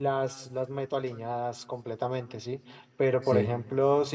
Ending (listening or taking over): listening